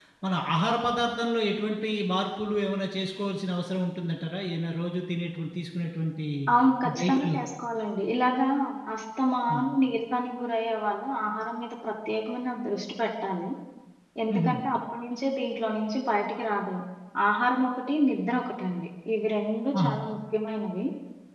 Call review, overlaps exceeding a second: none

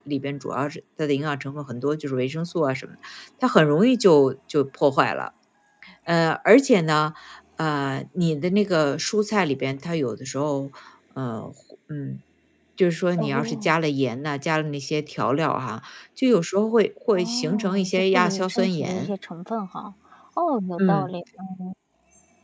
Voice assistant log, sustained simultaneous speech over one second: present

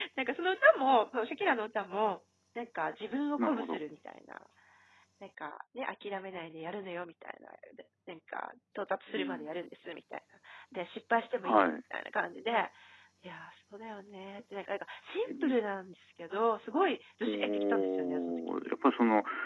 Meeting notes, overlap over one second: present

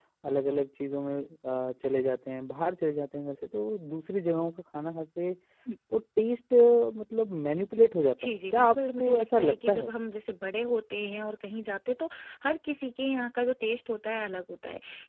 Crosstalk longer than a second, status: present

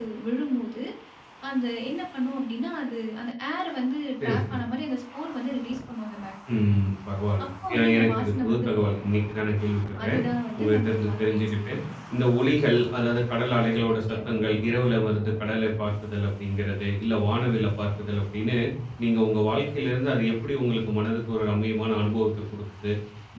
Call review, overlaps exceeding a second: present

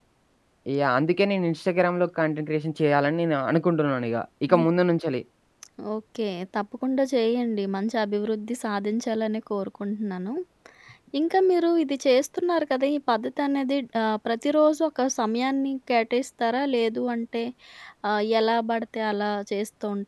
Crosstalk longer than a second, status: none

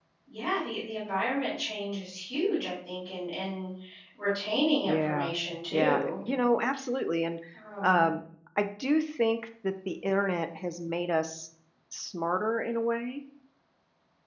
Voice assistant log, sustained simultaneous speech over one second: none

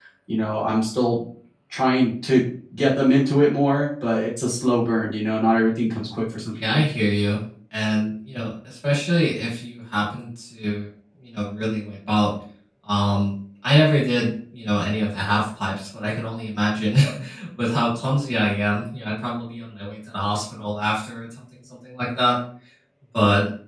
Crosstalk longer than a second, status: none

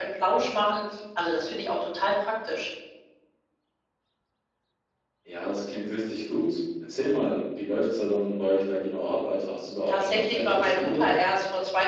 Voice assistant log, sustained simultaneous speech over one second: present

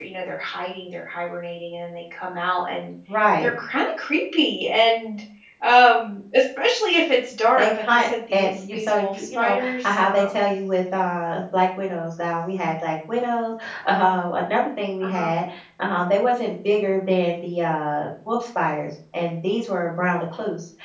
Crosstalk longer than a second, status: present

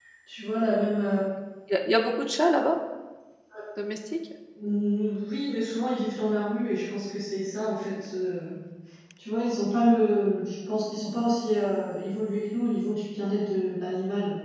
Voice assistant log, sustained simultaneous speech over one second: none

